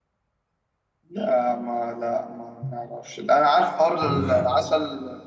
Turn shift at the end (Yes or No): No